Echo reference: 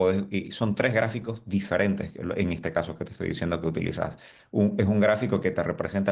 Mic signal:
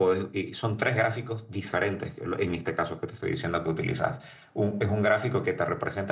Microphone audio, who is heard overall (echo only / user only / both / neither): echo only